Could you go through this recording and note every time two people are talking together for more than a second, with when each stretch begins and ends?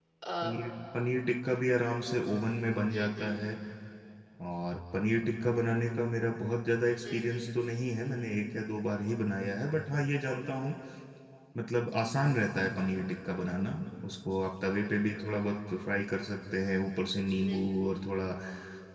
none

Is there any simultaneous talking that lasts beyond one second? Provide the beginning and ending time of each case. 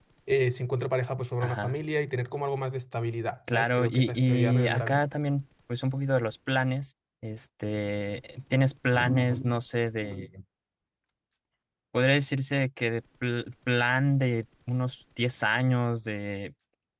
3.5-5.0

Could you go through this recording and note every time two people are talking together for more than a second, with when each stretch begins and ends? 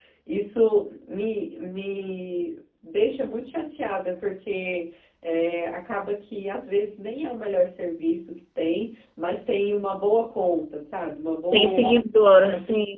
none

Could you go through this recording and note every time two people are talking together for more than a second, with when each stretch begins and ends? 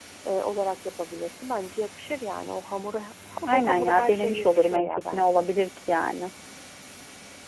3.5-5.5

